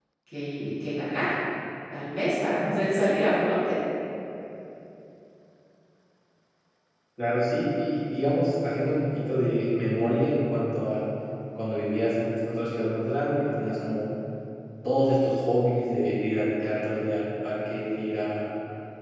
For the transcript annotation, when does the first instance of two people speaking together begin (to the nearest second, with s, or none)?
none